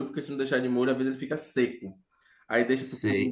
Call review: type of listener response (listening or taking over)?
taking over